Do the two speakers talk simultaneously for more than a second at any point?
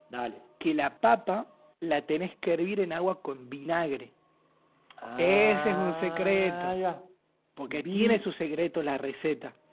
Yes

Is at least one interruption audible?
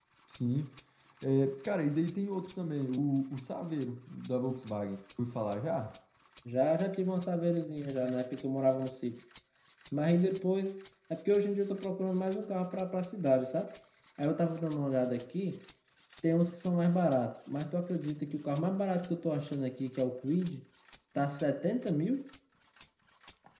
No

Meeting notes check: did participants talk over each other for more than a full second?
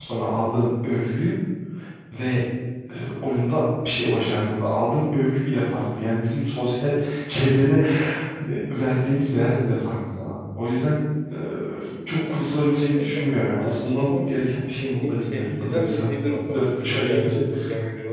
Yes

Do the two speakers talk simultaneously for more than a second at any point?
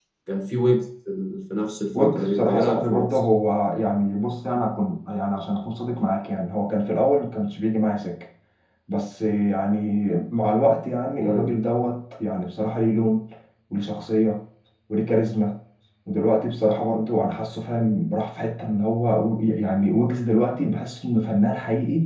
Yes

